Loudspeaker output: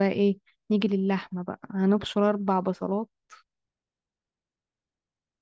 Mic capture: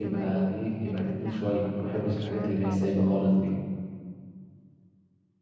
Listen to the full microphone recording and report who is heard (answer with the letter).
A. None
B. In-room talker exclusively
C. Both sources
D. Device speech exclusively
C